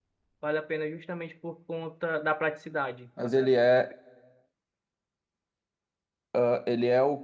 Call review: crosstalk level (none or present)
none